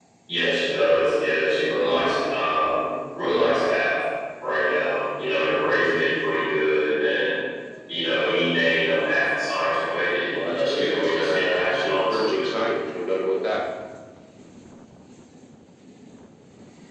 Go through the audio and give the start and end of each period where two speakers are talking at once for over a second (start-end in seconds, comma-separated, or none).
10.4-12.5